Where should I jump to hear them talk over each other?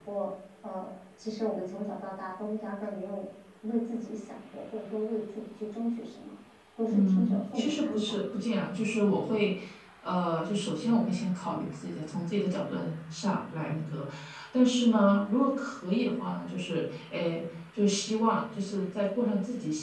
6.9 s

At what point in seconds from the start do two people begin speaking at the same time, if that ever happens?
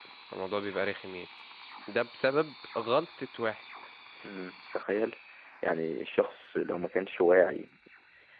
none

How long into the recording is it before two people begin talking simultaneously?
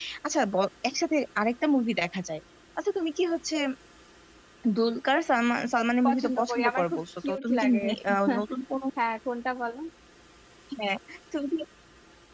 6.0 s

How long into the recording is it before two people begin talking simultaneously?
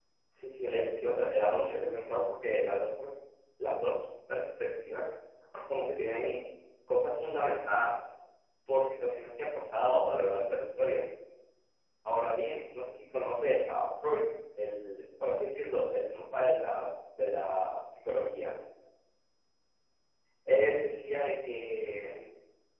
0.6 s

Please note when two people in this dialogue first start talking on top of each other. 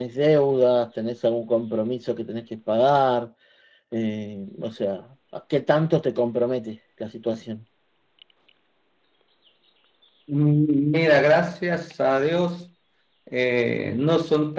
none

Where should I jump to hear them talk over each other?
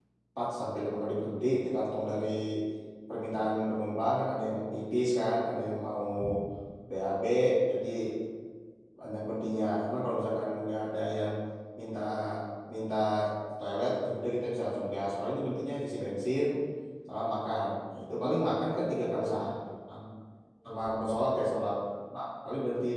18.2 s

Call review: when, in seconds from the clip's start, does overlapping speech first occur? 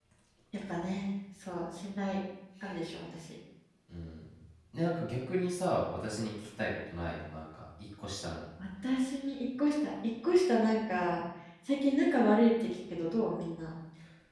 none

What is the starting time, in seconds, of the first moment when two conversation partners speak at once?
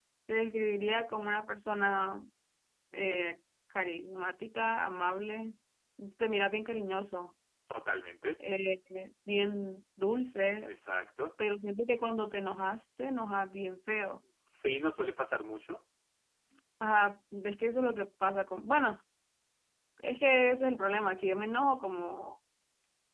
none

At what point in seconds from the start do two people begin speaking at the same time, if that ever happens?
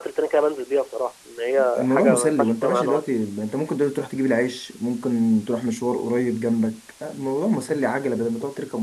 1.6 s

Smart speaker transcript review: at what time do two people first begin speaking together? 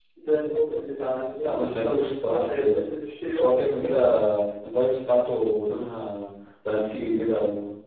1.4 s

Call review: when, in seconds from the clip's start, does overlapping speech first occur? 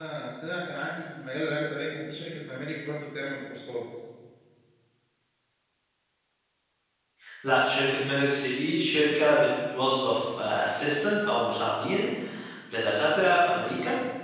none

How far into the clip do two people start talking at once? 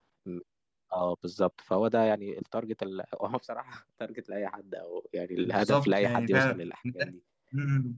5.5 s

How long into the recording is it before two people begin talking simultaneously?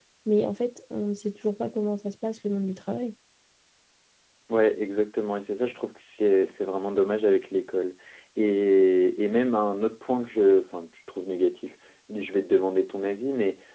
none

